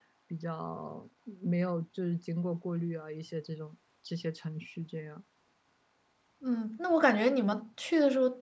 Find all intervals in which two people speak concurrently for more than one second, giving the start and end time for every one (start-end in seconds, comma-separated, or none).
none